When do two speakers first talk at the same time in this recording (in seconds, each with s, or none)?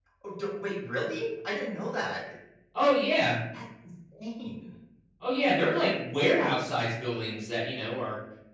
none